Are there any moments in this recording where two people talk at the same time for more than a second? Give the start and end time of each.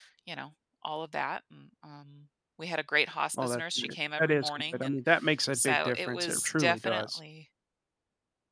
3.4-5.0, 5.5-7.2

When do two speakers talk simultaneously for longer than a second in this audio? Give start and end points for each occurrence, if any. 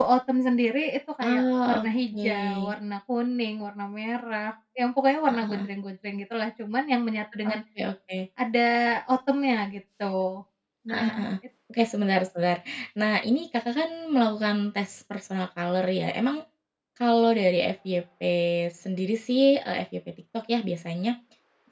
1.2-2.7

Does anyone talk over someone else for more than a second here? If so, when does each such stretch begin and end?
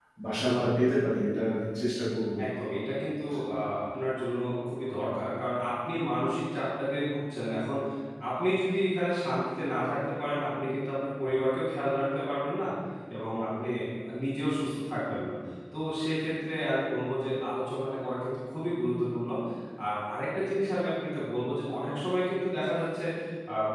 none

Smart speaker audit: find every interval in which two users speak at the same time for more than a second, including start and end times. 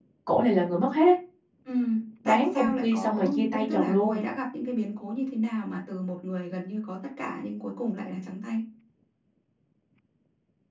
2.2-4.2

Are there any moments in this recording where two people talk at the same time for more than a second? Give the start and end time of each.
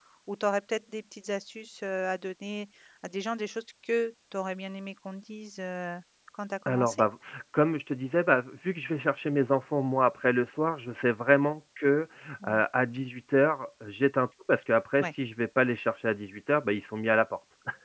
none

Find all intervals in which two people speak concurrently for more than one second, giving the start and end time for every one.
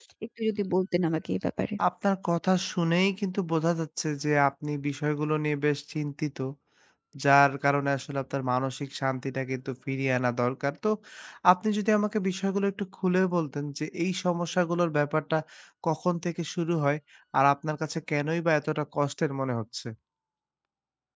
none

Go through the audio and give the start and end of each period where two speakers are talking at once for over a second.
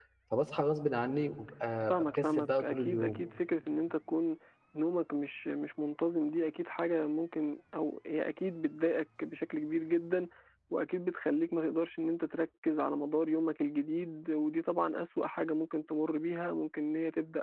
1.9-3.2

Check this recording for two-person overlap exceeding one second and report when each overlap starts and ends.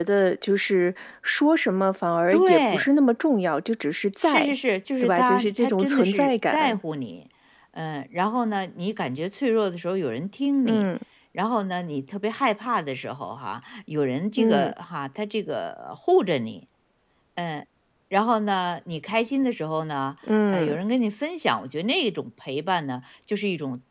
5.0-6.8

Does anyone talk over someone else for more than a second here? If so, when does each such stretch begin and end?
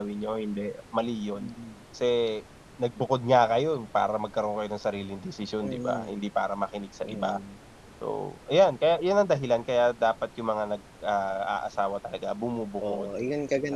none

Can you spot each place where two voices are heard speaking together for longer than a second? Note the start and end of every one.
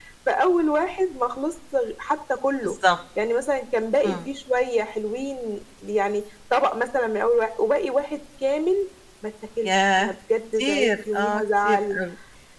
10.6-12.0

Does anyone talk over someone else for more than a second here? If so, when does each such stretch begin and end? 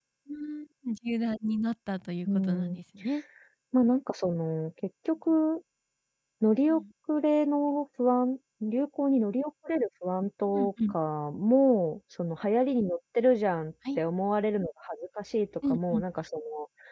none

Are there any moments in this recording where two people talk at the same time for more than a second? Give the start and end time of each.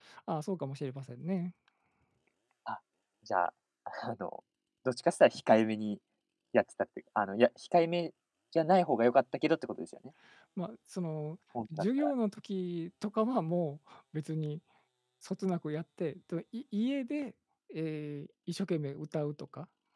none

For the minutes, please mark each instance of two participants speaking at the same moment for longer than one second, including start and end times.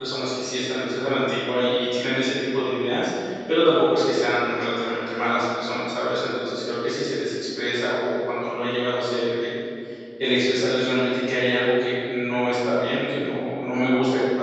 none

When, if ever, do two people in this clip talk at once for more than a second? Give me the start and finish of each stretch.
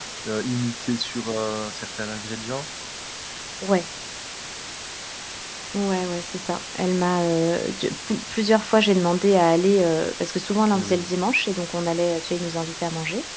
none

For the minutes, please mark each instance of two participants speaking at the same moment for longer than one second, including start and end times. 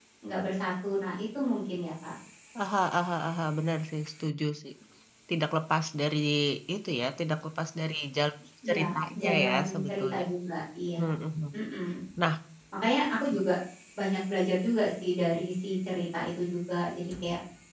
8.7-10.2

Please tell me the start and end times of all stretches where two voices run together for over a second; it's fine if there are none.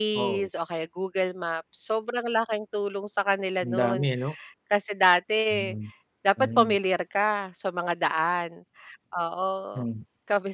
none

